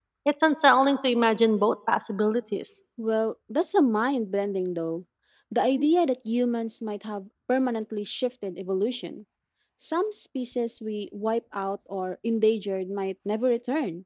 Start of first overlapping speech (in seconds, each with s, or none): none